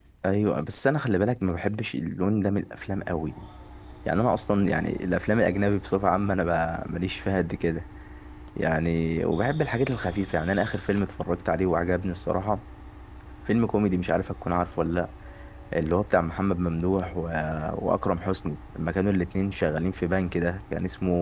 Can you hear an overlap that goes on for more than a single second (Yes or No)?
No